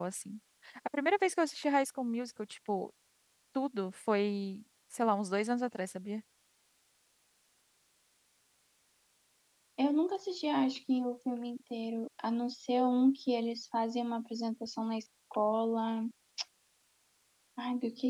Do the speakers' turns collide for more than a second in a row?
No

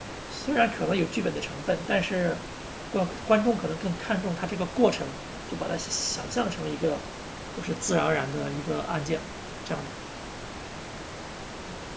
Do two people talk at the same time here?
No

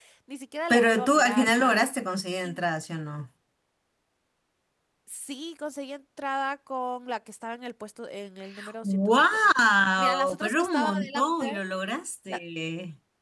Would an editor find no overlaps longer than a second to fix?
No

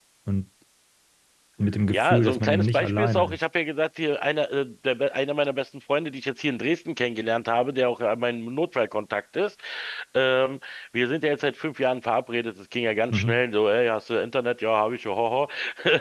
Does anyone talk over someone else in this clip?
Yes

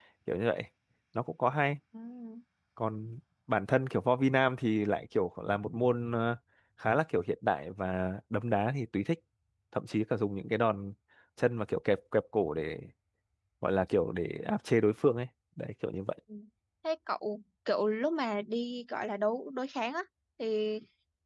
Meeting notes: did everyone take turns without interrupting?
Yes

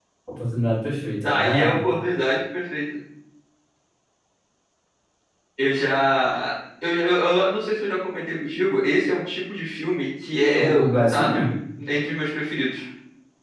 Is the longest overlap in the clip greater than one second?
No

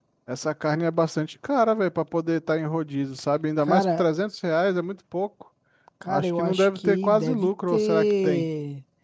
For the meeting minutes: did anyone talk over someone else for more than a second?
Yes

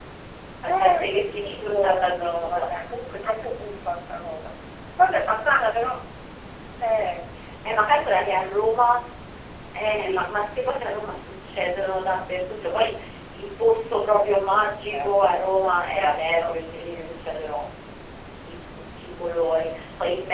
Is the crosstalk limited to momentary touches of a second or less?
No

